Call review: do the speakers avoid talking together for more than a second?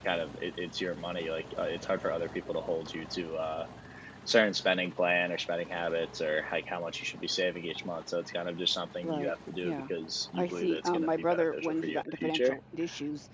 No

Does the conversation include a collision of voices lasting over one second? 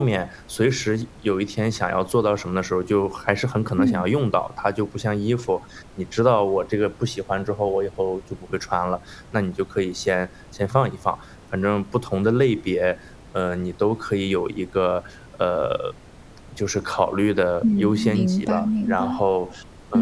Yes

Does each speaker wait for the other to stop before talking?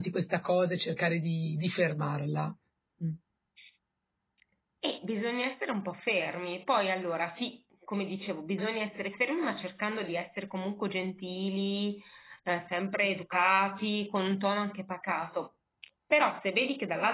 Yes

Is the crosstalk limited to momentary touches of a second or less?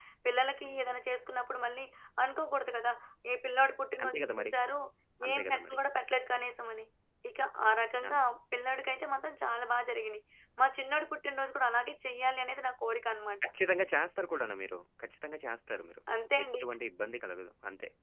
Yes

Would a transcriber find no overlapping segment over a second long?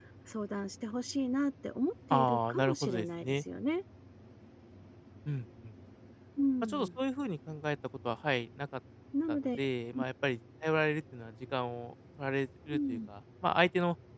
No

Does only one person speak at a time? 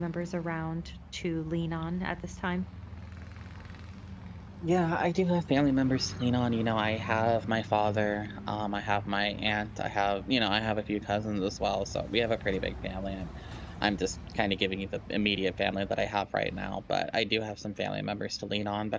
Yes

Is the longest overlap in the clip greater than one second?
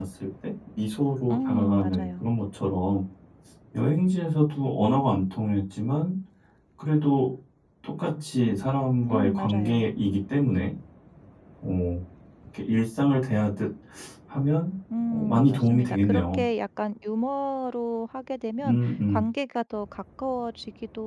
Yes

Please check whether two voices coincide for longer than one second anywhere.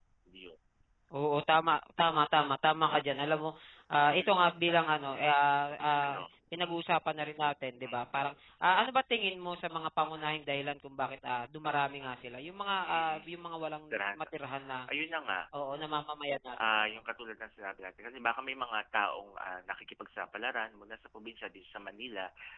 No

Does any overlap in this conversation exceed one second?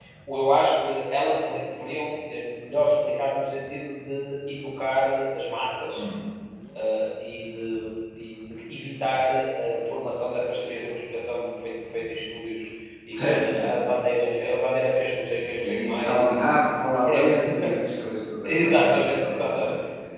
Yes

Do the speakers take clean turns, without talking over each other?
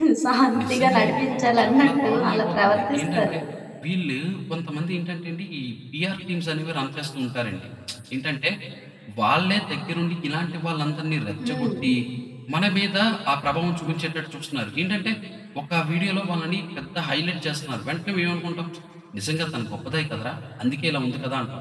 No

